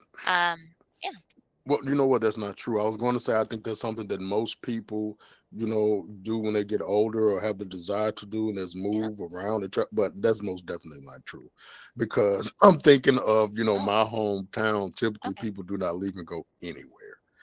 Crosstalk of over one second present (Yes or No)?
No